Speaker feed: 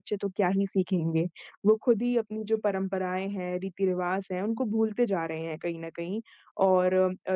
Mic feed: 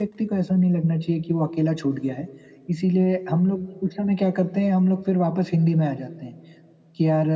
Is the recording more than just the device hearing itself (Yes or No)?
Yes